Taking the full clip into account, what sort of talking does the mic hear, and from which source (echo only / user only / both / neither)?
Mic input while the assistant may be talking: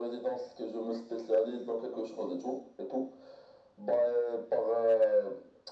echo only